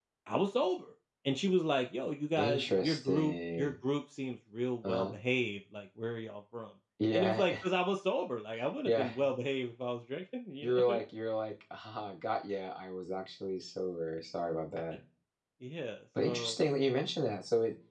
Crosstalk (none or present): present